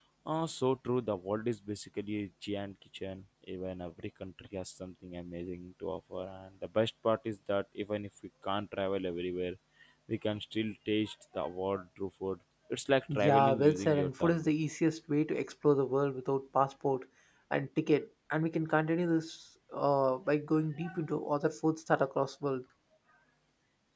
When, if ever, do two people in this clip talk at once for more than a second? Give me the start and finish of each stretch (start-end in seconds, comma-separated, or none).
13.1-14.5